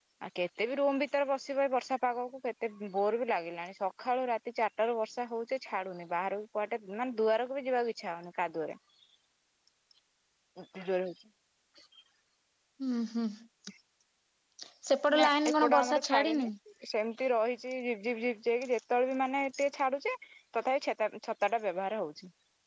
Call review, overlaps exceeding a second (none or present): present